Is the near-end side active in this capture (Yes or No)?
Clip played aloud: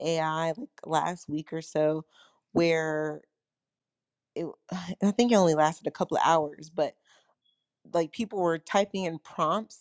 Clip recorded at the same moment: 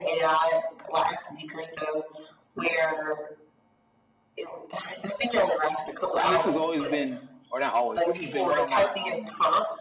Yes